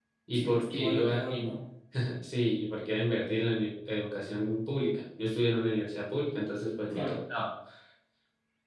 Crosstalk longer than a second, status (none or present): present